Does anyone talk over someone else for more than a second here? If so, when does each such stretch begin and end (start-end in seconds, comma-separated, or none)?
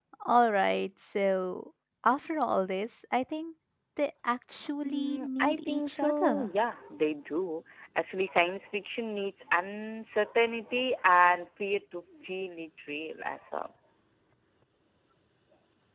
4.8-6.5